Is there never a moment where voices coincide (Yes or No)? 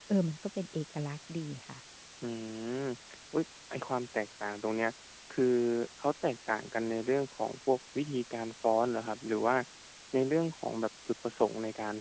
Yes